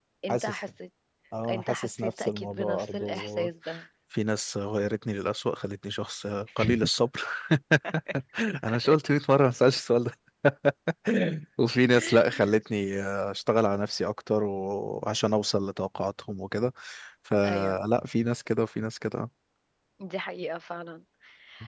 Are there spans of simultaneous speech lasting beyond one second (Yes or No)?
Yes